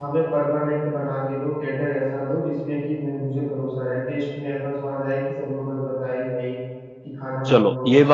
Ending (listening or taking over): taking over